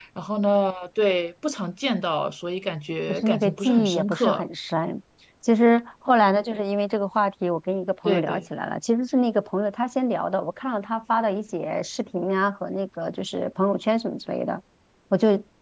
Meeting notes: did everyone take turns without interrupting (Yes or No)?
No